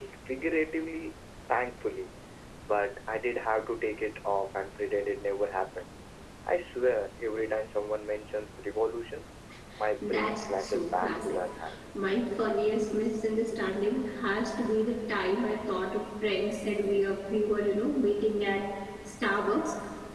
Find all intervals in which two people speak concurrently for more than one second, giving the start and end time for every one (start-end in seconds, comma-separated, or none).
10.0-11.4